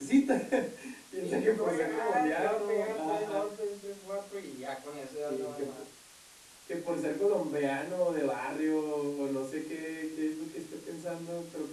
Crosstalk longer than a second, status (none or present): present